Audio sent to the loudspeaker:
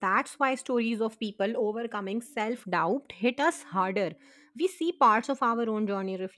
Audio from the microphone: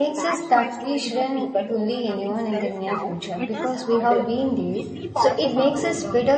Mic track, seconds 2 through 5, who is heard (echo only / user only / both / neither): both